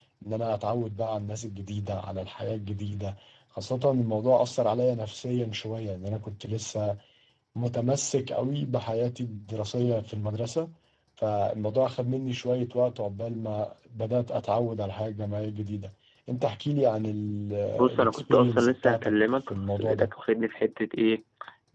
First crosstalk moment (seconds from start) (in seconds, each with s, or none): 17.8 s